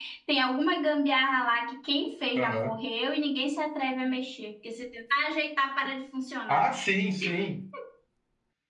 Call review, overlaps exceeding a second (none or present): none